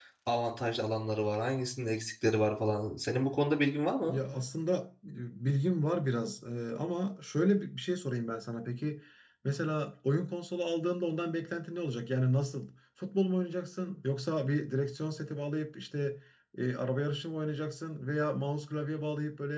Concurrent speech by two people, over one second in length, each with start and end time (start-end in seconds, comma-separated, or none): none